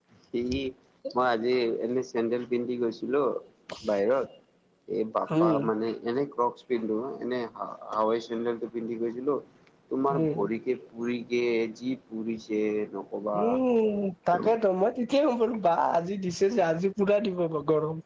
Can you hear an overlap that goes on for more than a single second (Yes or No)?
No